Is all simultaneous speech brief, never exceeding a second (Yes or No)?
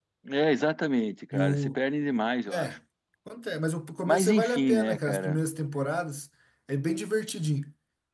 No